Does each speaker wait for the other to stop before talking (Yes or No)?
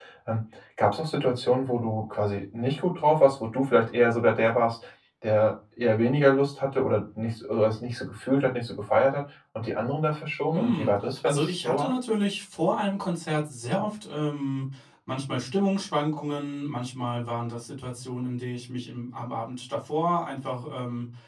No